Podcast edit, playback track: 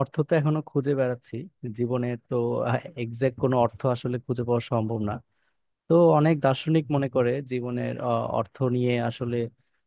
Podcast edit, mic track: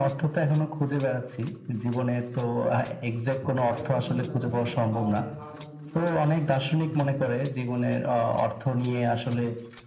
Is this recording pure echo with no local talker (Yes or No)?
No